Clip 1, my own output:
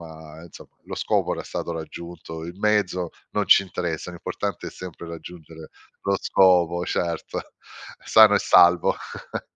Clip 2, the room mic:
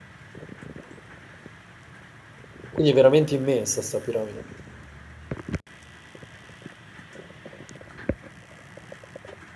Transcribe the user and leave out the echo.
Quindi è veramente immensa 'sta piramide.

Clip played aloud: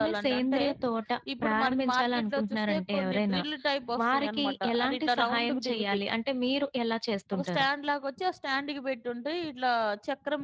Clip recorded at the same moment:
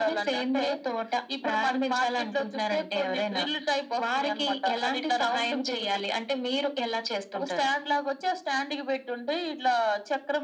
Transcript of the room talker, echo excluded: none

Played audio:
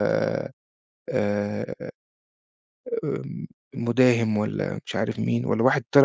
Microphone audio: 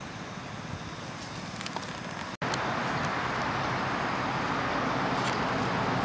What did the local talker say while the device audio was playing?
none

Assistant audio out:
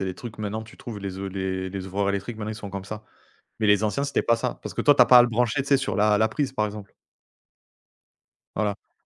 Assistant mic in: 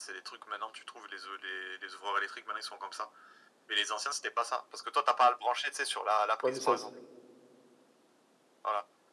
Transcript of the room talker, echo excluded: Ouais, mais ça se

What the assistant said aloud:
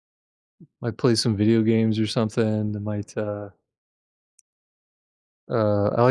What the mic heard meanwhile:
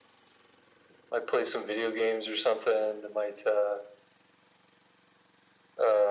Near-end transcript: none

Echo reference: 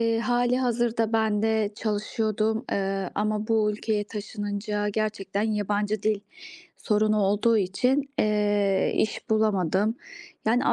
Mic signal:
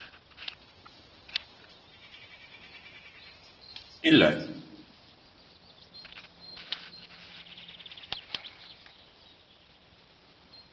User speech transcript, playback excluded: İlla ki.

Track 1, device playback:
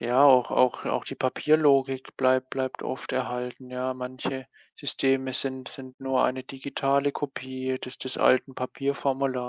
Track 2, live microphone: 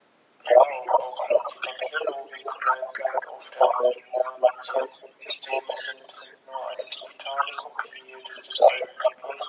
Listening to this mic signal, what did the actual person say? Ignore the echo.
none

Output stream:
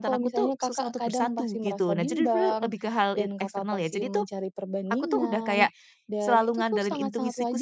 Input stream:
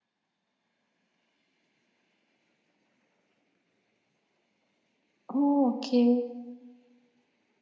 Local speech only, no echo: Oh, oke.

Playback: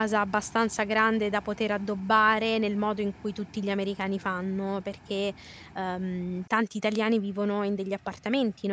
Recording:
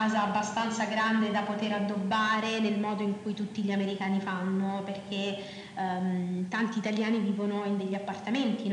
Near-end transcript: none

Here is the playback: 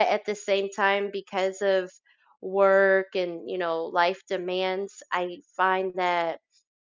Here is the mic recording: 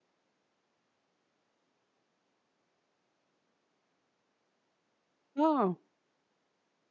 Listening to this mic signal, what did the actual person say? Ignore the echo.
Oh,

